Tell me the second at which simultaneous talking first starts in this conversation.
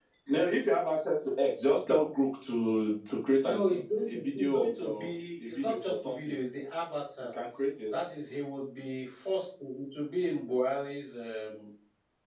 3.4 s

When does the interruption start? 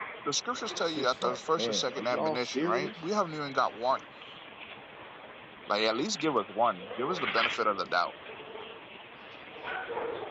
0.7 s

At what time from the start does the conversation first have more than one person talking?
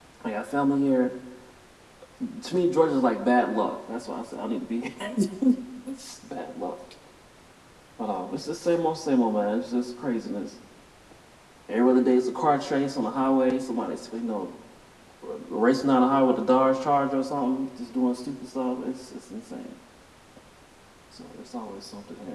none

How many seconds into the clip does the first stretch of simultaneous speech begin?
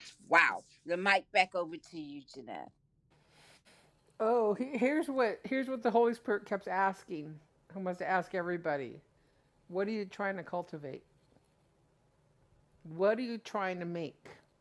none

